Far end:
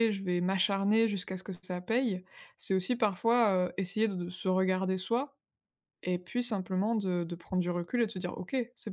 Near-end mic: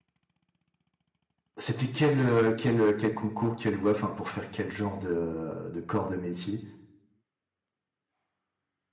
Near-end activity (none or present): present